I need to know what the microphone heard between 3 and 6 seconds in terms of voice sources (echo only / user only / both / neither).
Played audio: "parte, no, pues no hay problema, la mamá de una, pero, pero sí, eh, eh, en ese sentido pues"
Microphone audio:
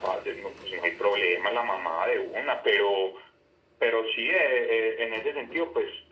echo only